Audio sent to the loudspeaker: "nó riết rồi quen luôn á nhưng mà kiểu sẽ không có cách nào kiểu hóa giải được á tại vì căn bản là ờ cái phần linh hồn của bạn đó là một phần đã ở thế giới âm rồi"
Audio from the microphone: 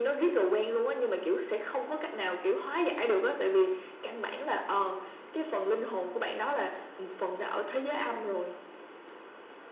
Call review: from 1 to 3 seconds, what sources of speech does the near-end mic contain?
echo only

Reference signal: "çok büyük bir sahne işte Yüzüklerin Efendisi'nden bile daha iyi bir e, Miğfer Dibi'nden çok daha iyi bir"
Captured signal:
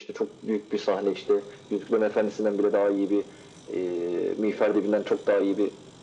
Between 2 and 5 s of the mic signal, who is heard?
echo only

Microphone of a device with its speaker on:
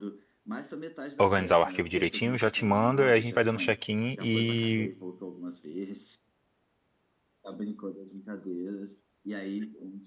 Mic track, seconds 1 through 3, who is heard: both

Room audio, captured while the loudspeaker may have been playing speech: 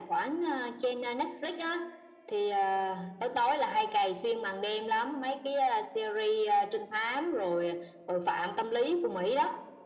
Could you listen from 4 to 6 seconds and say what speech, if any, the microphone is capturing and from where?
echo only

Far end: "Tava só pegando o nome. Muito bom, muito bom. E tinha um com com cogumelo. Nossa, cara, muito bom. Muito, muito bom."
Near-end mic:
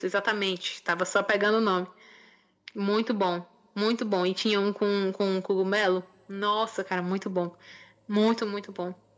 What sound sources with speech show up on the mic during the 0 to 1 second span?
echo only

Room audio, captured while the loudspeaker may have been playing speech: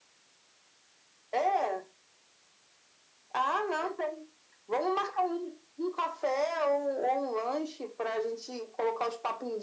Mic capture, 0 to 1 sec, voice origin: neither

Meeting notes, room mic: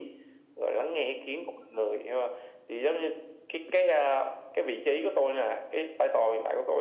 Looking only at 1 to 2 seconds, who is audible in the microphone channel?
echo only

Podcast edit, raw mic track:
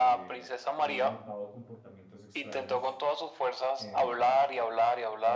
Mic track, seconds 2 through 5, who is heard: both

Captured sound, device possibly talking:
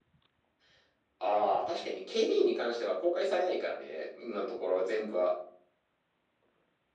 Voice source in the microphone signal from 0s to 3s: echo only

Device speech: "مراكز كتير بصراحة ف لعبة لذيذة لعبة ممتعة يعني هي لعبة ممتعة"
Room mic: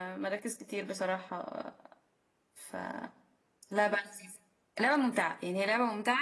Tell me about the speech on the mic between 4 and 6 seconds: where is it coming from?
echo only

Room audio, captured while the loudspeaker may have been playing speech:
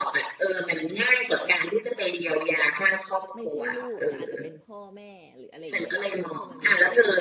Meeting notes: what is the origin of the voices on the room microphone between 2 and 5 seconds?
both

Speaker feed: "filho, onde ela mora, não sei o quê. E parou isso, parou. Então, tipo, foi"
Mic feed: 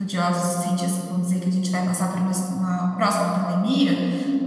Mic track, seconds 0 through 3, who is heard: user only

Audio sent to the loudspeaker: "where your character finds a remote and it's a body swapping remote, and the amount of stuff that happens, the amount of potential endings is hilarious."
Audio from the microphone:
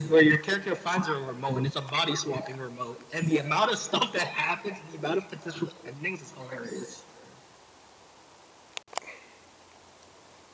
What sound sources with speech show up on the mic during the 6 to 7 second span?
echo only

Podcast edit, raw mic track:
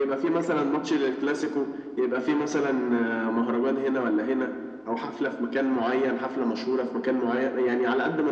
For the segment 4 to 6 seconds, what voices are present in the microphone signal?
echo only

